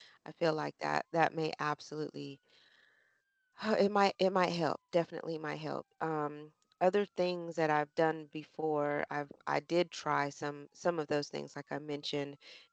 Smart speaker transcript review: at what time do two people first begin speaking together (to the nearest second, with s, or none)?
none